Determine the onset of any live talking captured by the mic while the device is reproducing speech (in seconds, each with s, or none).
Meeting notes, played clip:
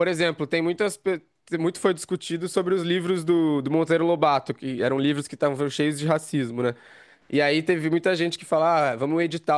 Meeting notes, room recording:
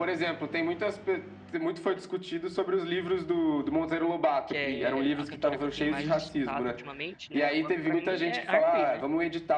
4.5 s